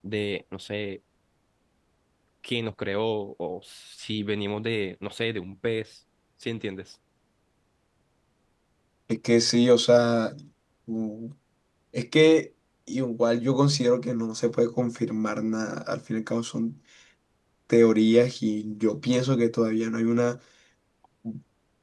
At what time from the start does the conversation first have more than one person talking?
none

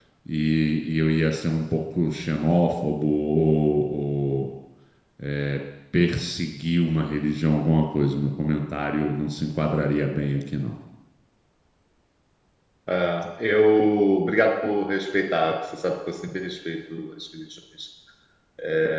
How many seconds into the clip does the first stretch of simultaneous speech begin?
none

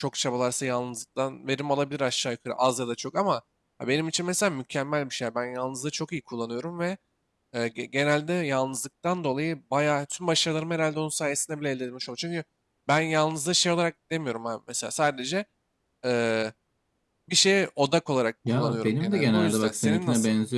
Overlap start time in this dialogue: 18.4 s

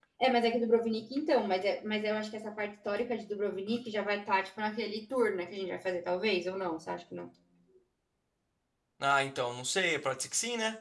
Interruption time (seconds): none

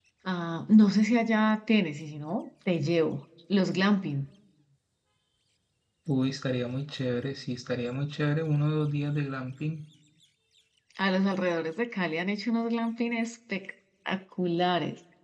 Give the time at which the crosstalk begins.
none

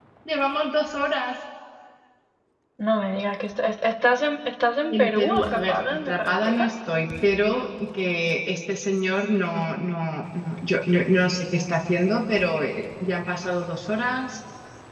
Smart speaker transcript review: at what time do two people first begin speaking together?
4.9 s

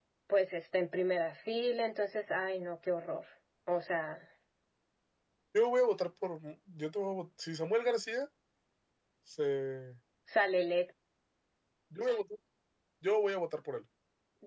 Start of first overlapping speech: none

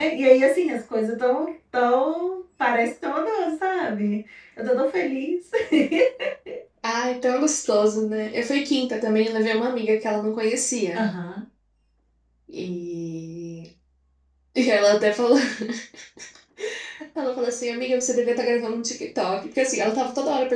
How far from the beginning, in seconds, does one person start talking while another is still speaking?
none

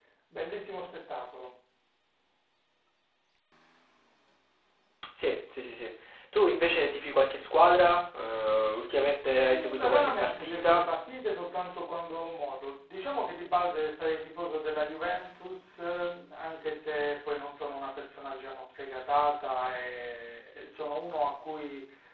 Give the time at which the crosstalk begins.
9.4 s

